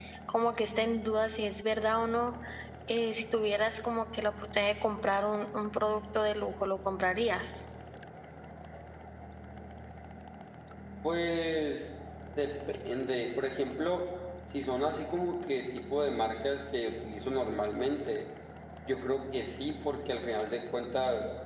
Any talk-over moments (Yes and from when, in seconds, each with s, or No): No